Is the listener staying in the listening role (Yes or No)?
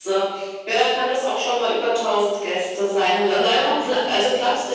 Yes